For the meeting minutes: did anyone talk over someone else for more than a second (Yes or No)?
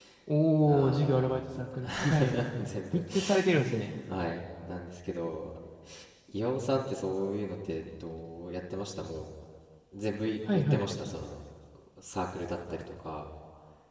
Yes